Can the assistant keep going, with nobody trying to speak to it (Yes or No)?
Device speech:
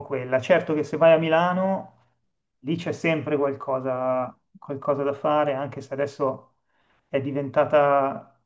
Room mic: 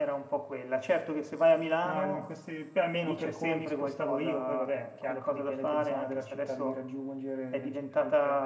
No